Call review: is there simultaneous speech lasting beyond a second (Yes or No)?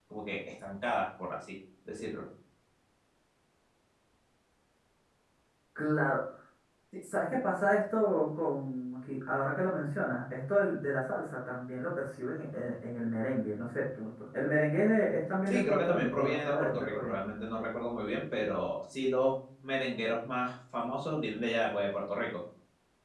Yes